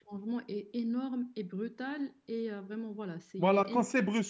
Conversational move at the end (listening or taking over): taking over